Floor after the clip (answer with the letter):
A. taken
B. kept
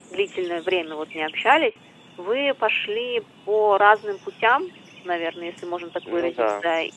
B